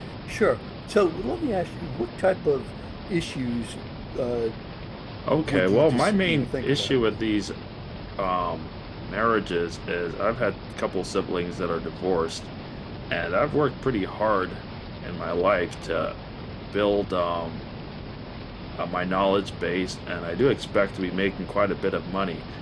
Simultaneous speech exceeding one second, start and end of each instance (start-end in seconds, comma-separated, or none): 5.4-7.0